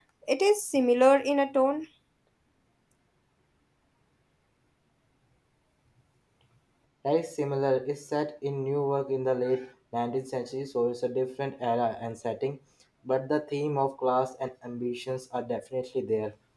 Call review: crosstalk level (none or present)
none